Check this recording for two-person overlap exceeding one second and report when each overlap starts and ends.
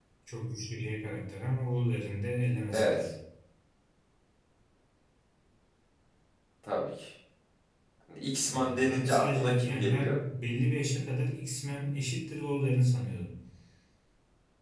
8.5-10.2

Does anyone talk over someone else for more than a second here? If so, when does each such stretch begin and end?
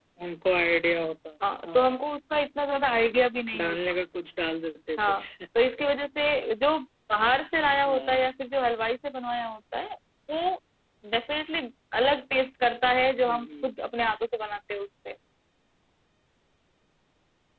none

